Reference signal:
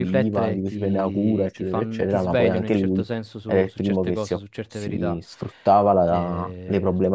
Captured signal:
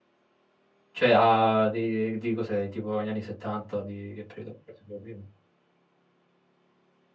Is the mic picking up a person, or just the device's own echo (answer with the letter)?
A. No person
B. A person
B